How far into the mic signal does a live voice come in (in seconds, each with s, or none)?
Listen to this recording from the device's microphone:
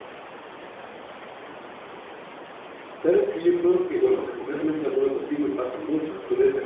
2.9 s